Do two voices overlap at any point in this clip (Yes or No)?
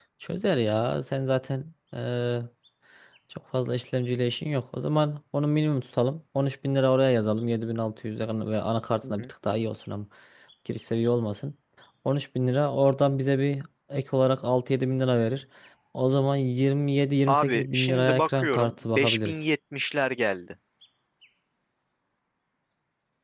Yes